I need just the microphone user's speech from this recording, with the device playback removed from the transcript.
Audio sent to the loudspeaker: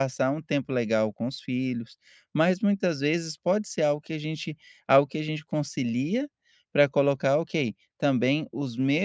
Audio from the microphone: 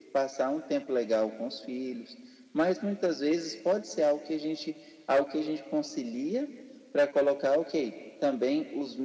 none

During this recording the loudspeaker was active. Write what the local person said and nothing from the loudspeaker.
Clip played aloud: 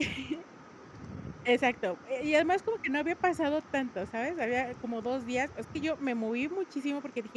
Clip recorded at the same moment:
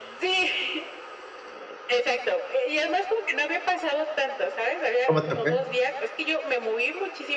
¿Cómo te fue?

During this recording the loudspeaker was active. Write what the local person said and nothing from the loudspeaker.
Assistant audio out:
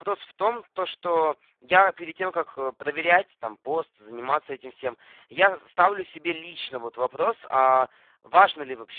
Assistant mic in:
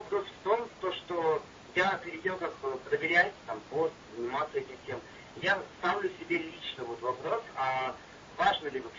none

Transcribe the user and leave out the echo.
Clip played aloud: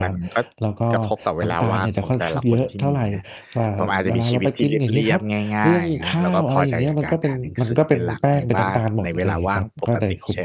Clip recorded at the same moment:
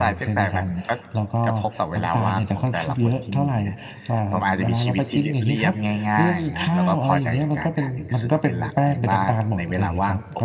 none

